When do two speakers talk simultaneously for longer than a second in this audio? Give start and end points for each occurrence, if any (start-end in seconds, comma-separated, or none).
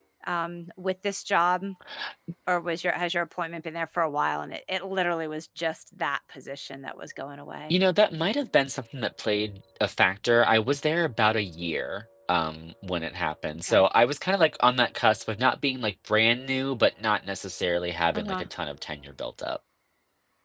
none